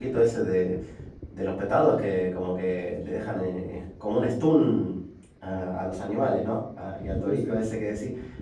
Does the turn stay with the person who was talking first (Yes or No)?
Yes